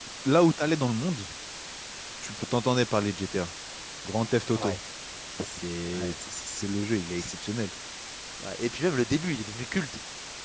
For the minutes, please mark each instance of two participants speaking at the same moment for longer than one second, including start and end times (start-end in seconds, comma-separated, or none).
none